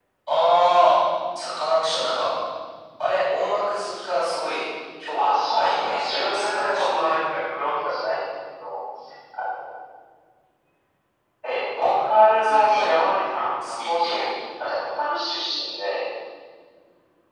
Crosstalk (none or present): present